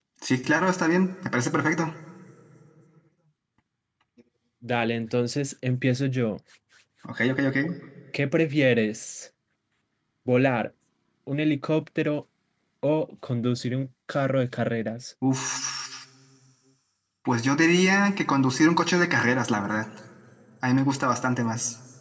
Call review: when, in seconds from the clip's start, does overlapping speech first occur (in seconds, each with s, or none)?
none